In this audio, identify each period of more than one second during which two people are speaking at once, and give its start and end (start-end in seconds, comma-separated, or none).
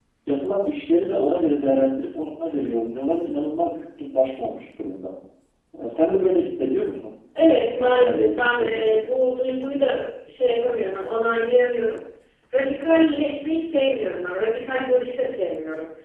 7.8-9.0